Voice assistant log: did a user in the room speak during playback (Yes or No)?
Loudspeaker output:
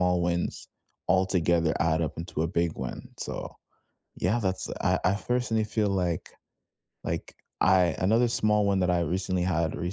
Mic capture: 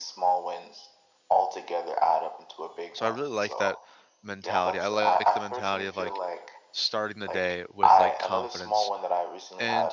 Yes